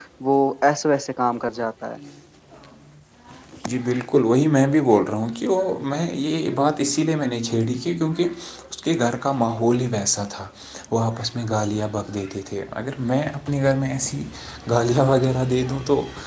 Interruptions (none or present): none